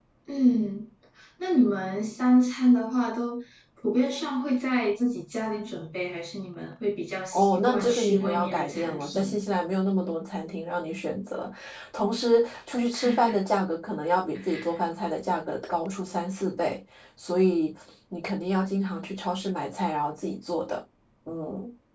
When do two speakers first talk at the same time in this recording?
7.3 s

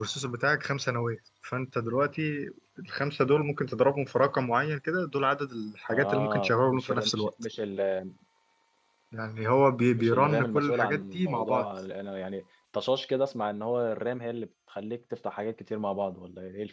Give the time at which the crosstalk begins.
5.9 s

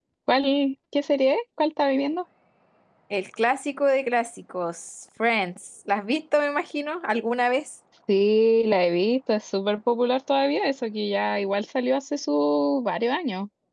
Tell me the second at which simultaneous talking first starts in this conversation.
none

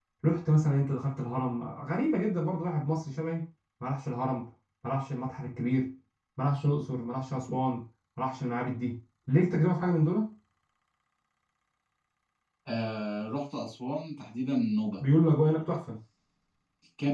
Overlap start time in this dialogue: none

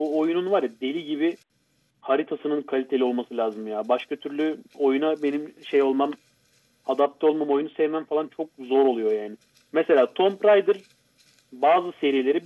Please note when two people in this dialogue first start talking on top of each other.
none

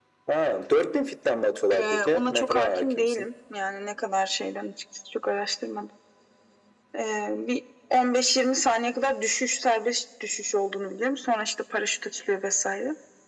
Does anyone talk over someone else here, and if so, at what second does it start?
1.7 s

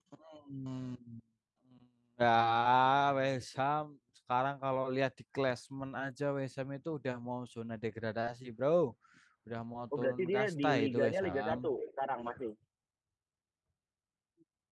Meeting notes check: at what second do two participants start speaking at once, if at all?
10.0 s

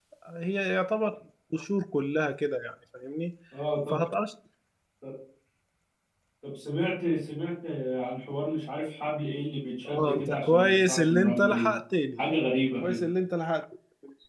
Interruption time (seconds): 9.8 s

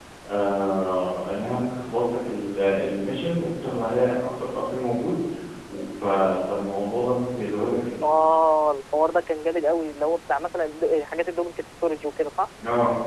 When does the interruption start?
none

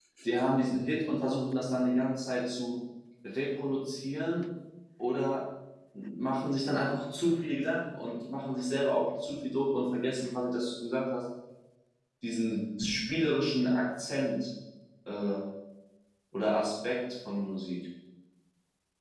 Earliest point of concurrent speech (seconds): none

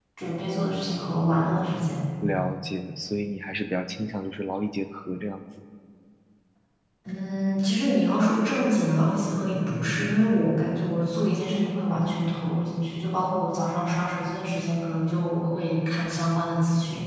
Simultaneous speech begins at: none

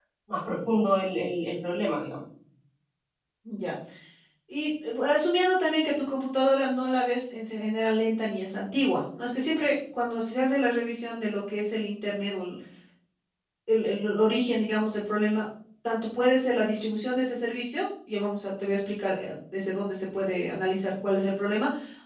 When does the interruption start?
none

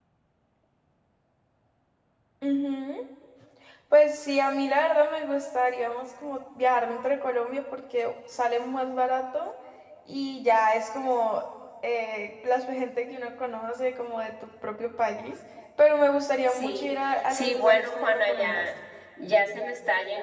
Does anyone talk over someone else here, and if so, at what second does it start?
16.5 s

